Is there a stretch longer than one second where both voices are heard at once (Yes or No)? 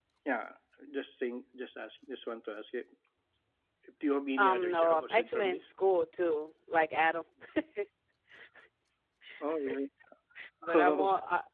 Yes